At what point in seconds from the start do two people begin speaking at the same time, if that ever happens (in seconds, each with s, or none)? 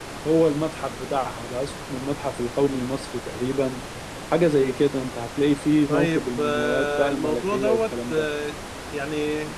5.9 s